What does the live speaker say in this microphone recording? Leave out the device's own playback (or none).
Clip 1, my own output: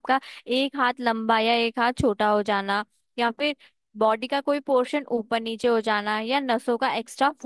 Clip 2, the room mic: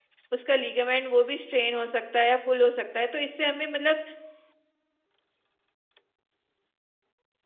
उसका लीगामेंट वो भी स्ट्रेन हो सकता है या पुल हो सकता है तो इससे हमें मतलब